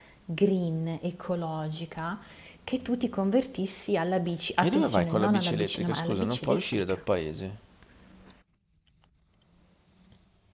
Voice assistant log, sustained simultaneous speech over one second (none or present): present